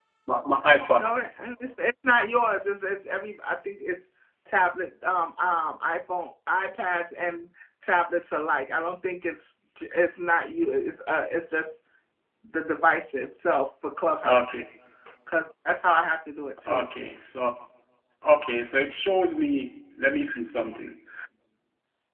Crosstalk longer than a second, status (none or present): none